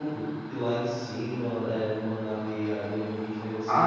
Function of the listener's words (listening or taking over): taking over